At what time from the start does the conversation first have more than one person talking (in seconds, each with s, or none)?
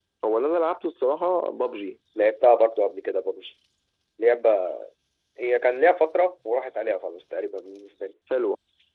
none